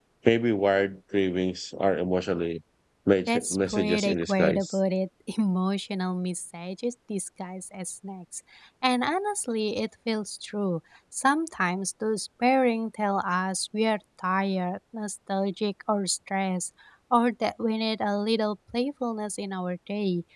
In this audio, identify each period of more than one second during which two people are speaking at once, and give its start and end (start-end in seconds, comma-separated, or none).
3.3-4.8